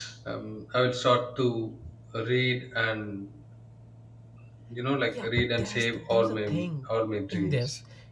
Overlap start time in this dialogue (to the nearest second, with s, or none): 5 s